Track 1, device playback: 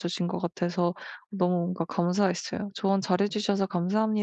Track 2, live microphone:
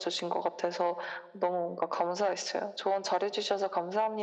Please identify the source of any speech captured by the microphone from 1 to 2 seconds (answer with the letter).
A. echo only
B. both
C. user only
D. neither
A